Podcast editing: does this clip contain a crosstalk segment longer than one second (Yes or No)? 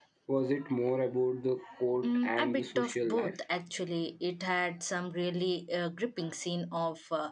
Yes